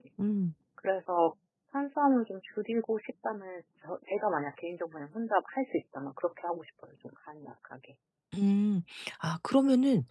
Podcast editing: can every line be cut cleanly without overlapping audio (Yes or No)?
Yes